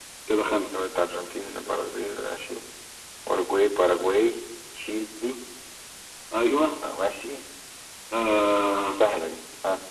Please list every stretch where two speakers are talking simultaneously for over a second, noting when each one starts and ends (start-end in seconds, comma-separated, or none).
none